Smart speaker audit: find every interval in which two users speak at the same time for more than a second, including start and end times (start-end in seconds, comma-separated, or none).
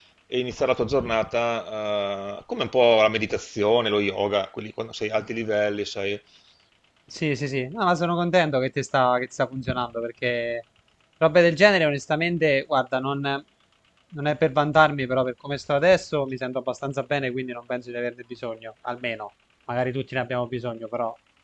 none